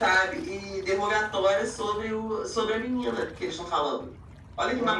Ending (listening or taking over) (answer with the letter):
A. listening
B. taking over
B